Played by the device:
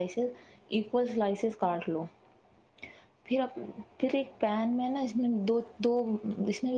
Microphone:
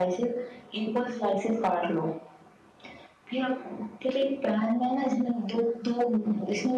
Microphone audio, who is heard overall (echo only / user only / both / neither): echo only